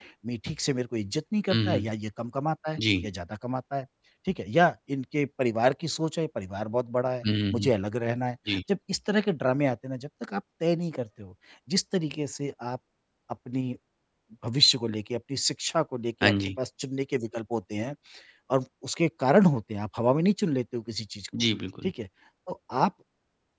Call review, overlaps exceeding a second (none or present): none